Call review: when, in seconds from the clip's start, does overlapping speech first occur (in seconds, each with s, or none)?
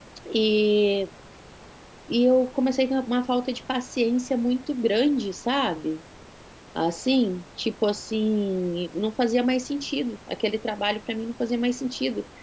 none